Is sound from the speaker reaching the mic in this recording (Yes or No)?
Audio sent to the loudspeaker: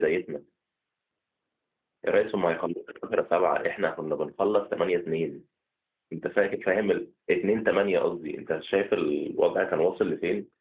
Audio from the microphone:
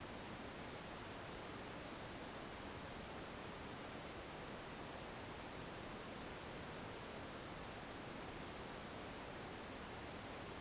No